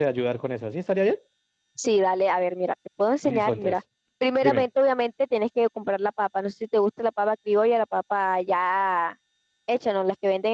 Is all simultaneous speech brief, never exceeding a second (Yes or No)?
Yes